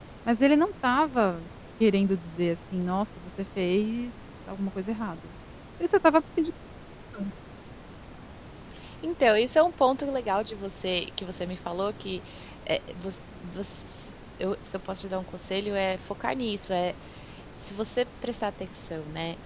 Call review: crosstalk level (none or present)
none